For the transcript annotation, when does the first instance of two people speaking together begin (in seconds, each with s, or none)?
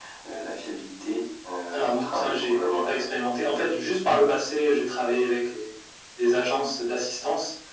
1.7 s